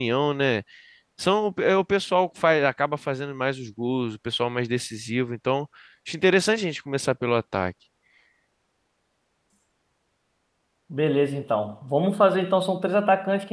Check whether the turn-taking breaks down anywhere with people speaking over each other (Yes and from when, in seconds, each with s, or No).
No